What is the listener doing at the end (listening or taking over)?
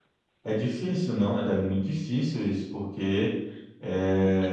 listening